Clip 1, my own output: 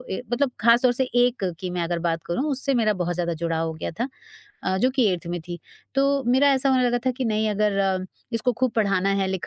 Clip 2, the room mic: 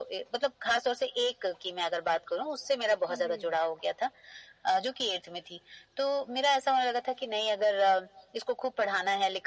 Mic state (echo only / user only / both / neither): both